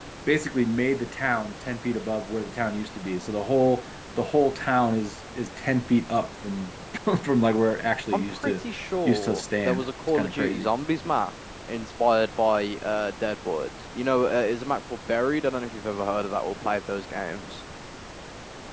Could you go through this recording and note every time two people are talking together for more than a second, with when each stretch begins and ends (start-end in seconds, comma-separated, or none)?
9.1-10.7